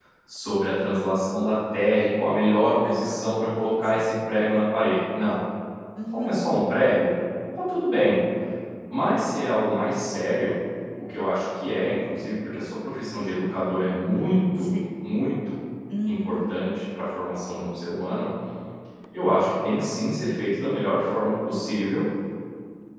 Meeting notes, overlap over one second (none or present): none